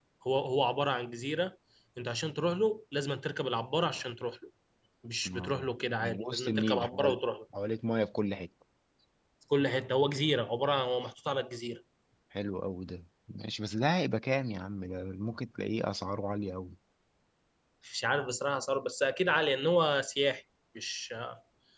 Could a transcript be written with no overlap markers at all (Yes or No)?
No